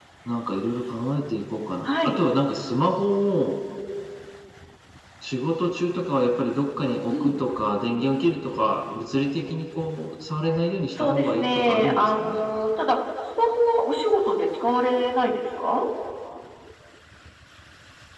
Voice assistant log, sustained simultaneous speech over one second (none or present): present